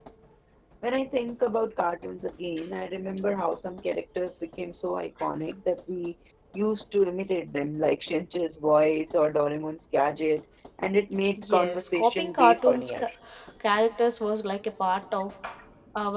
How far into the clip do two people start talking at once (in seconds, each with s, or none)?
11.4 s